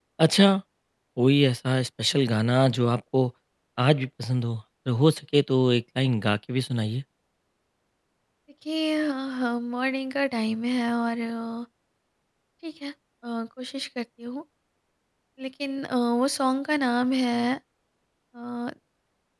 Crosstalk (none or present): none